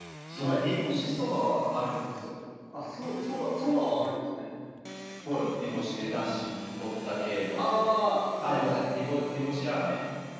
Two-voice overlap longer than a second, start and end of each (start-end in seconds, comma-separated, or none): none